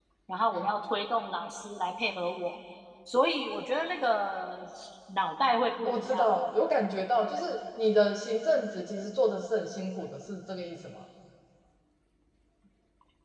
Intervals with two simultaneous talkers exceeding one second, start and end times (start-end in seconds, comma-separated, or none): none